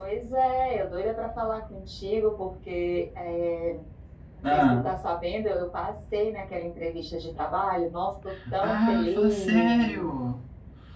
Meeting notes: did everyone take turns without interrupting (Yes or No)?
No